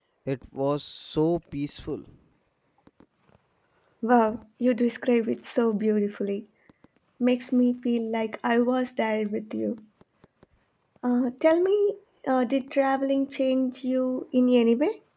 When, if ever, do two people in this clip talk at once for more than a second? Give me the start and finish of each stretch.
none

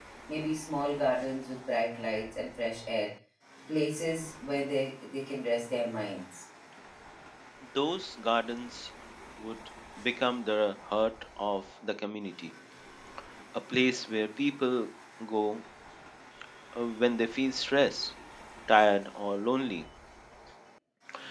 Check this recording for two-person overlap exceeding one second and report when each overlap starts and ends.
none

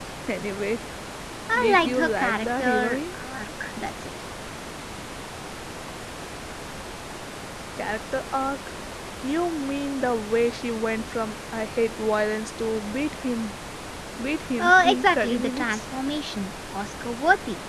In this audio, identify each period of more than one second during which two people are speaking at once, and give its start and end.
1.6-3.0, 14.6-15.8

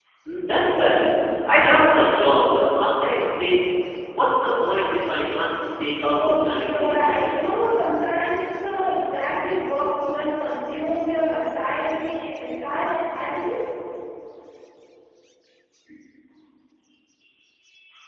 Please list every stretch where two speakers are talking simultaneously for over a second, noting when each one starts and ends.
6.0-7.5

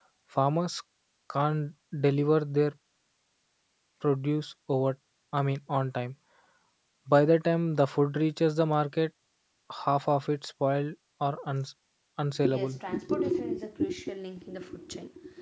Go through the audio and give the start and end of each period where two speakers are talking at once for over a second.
none

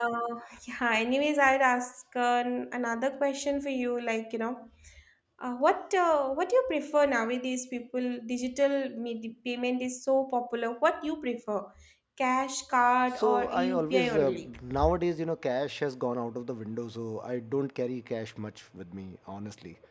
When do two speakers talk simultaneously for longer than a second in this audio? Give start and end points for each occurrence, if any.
13.1-14.5

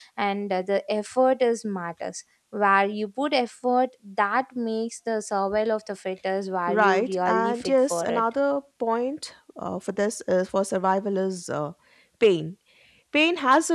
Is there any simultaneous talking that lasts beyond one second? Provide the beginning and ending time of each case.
6.7-8.2

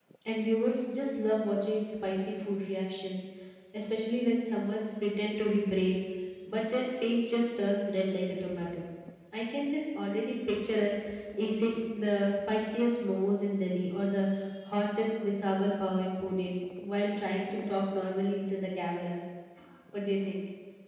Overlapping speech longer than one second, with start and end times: none

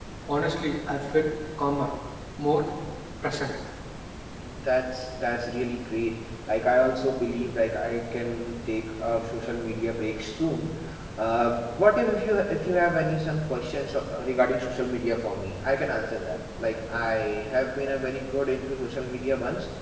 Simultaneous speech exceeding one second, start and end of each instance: none

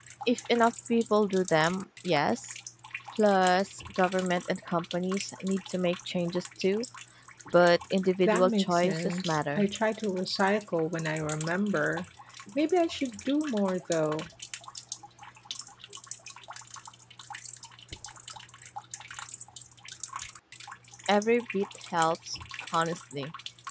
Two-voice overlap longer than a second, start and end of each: 8.2-9.7

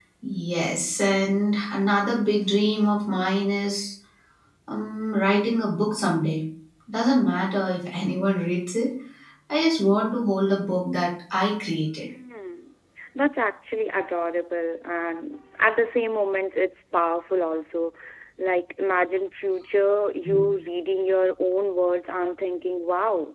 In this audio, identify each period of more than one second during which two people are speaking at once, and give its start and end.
none

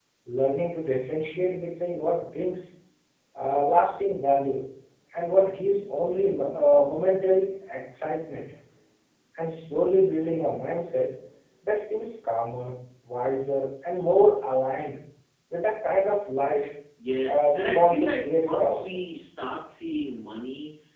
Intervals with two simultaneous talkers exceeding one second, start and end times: 17.3-19.1

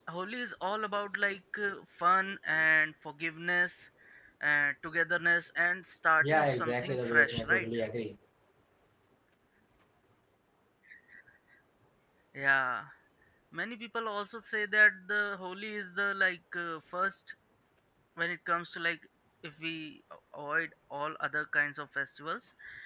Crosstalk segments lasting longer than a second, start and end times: 6.2-7.7

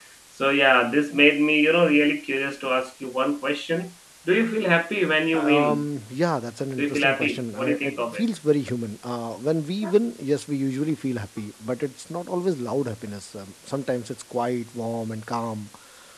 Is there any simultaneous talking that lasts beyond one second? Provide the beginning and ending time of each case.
6.8-8.2

